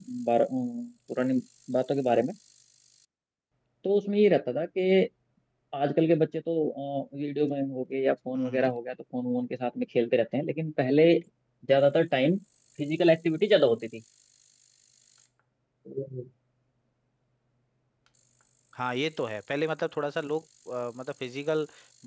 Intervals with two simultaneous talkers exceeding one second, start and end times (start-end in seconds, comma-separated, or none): none